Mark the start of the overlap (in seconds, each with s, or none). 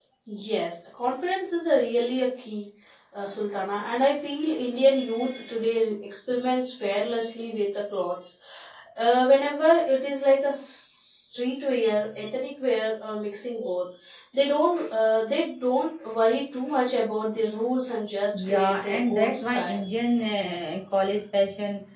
18.3 s